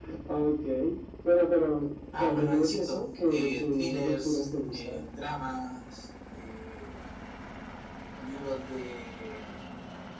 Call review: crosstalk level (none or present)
present